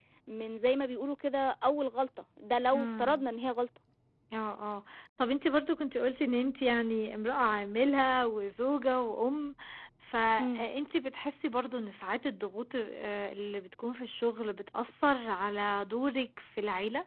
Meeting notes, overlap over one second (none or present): none